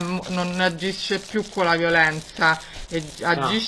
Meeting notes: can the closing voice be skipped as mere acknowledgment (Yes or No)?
Yes